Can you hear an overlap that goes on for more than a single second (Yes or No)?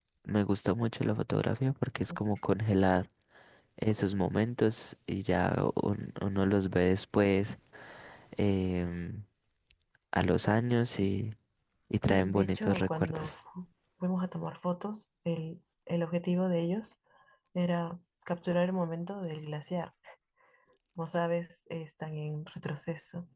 Yes